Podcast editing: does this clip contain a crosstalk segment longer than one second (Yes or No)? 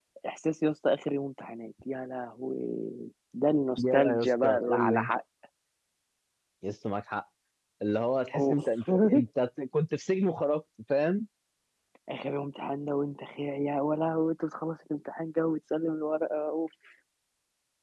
Yes